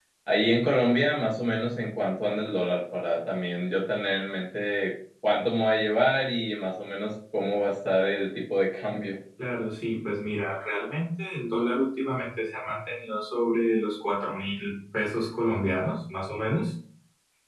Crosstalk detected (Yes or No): No